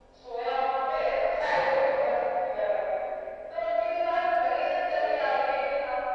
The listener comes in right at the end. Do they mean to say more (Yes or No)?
No